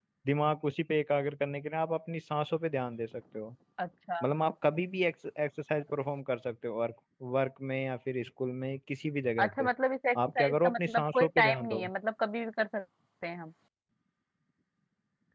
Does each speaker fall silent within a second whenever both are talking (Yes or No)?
No